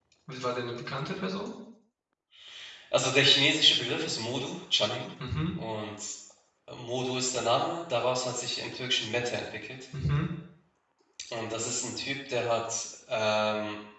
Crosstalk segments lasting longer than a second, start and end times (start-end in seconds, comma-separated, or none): none